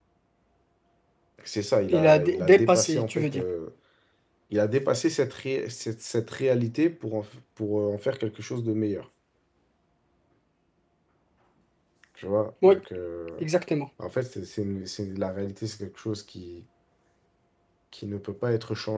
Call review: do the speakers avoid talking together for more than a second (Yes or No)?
No